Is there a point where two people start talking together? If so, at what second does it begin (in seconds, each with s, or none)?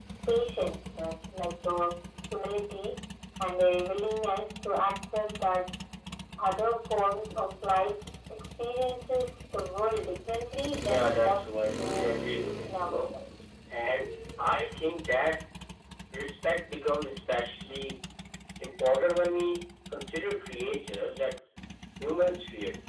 10.8 s